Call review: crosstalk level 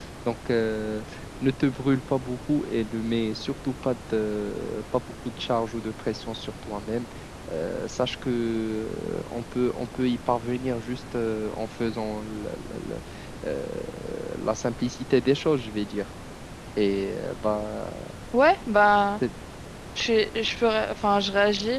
none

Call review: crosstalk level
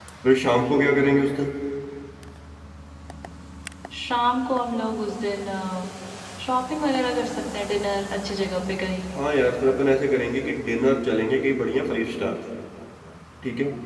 none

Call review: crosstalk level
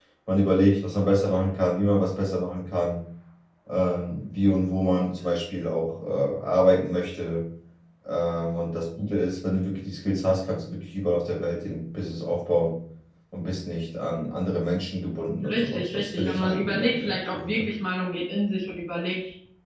present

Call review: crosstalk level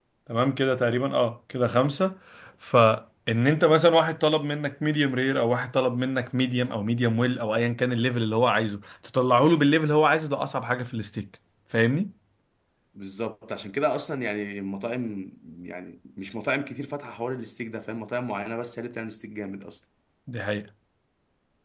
none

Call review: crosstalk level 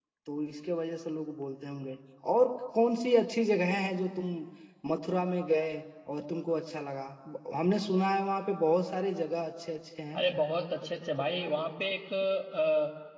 none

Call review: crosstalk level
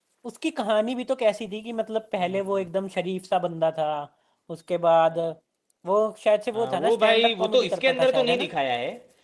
present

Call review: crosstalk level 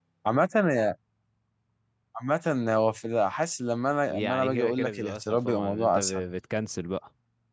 present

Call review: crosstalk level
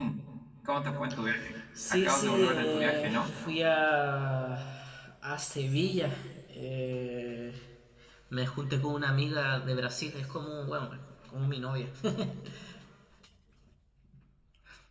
present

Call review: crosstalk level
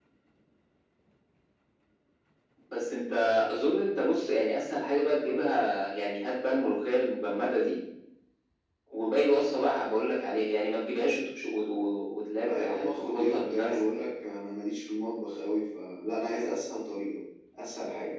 present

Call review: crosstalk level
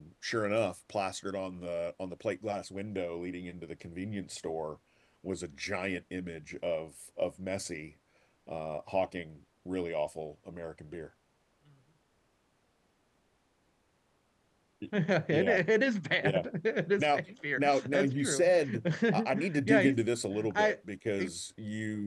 present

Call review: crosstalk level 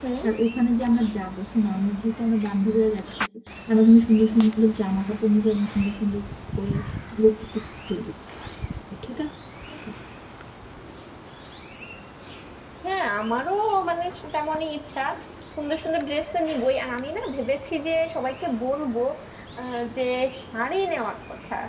none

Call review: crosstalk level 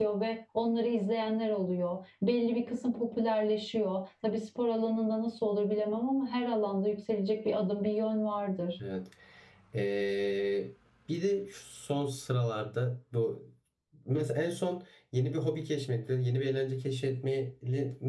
none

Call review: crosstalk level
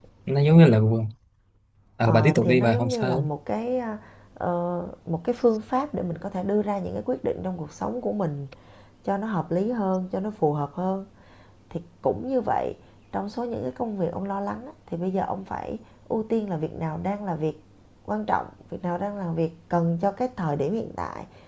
present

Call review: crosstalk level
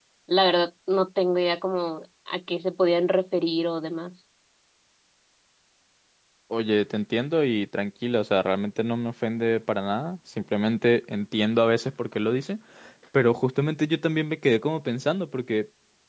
none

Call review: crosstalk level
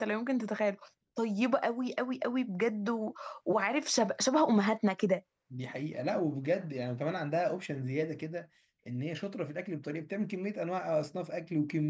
none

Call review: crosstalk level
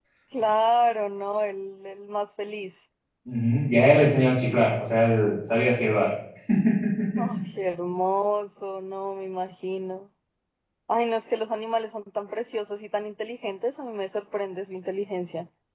none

